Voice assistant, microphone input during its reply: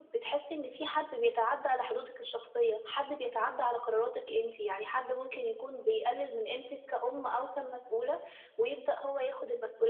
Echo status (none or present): present